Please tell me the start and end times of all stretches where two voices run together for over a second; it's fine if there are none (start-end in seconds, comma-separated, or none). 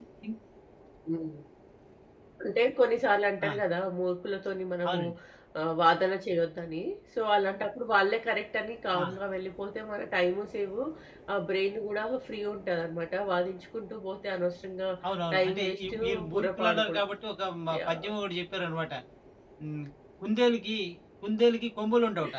15.3-17.0